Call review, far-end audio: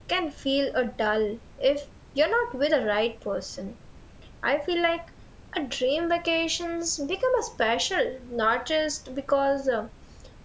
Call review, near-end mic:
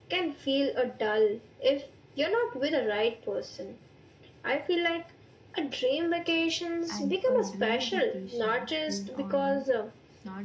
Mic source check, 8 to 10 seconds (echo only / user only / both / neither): both